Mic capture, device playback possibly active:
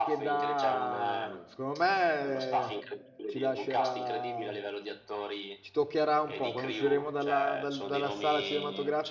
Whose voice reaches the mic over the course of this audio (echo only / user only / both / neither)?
both